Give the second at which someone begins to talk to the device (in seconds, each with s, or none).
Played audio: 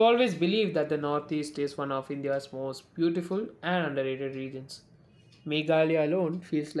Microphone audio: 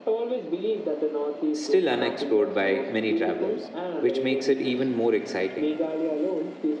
1.5 s